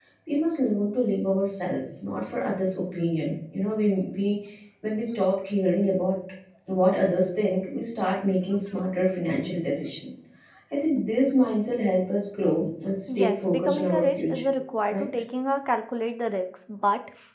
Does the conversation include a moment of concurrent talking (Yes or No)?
Yes